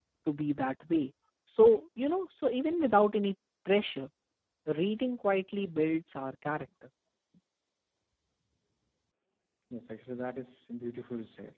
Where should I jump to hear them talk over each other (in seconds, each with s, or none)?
none